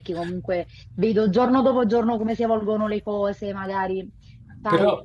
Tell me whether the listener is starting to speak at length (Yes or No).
No